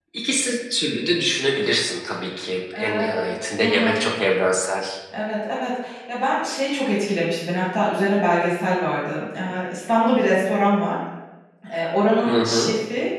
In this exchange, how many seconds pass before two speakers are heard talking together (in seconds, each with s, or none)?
2.8 s